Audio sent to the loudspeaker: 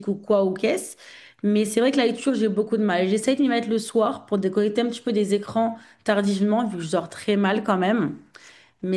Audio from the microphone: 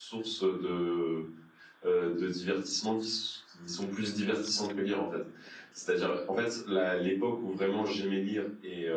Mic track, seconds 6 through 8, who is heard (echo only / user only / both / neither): user only